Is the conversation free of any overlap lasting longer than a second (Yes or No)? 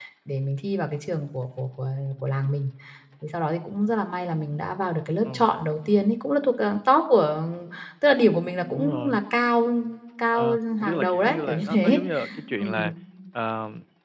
No